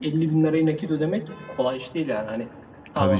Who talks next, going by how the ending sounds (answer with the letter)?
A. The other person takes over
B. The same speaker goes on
B